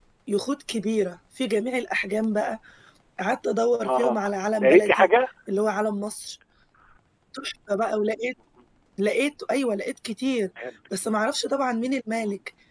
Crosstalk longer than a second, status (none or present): present